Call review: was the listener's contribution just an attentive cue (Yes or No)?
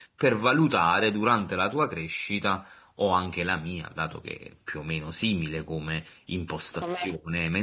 Yes